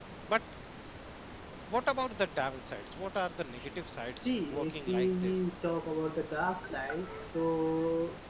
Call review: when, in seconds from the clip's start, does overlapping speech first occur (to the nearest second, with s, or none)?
4 s